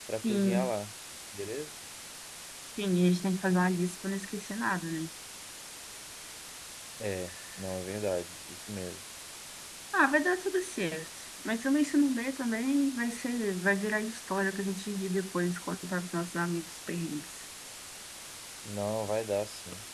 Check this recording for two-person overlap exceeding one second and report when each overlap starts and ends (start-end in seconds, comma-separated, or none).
none